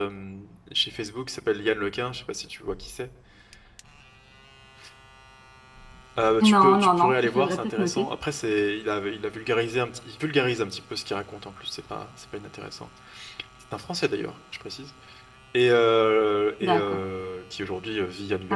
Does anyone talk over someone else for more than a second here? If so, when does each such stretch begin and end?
6.5-8.0

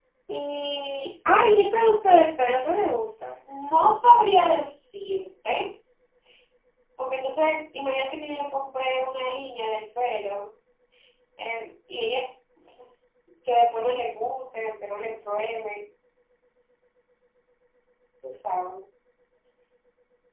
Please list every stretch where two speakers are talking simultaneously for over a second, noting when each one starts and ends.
none

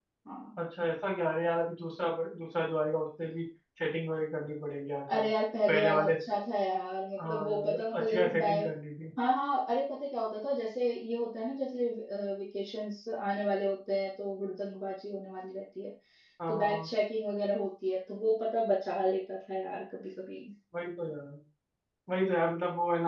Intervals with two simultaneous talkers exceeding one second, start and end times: 7.2-8.7

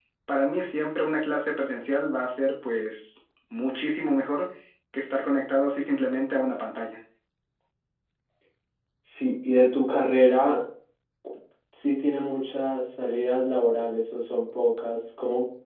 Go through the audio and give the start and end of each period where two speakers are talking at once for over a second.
none

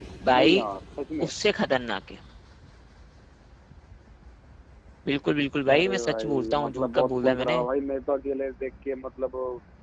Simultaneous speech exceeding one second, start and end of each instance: 5.7-7.6

